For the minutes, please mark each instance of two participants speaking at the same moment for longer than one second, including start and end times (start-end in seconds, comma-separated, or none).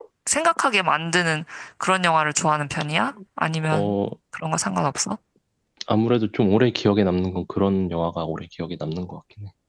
none